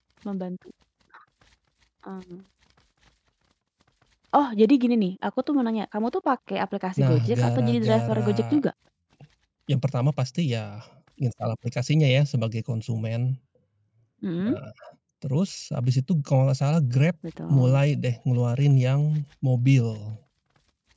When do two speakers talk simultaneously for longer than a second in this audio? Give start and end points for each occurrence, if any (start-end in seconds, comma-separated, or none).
7.0-8.6